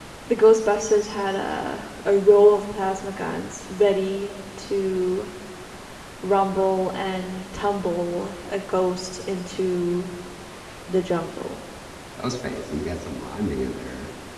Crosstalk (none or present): none